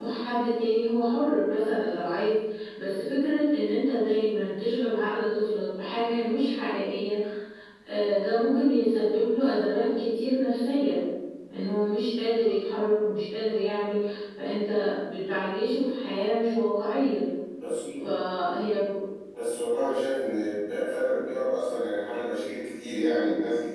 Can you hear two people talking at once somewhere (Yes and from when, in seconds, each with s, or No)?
No